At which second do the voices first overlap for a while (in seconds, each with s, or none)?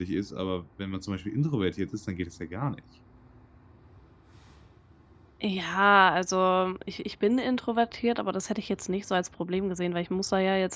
none